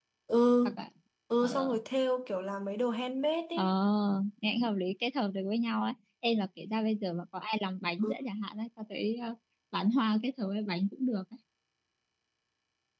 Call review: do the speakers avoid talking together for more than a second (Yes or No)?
Yes